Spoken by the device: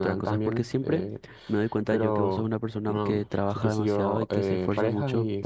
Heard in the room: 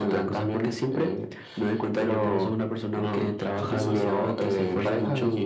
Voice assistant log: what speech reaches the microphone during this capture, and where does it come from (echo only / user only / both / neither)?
both